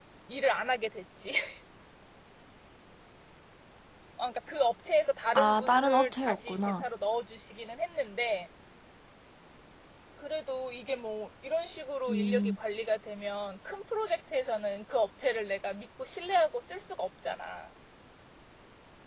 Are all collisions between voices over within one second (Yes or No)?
No